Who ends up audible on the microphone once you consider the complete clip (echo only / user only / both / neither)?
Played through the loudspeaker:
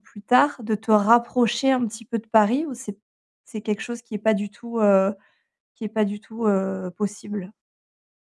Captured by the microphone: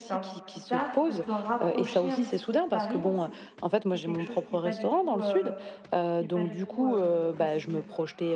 both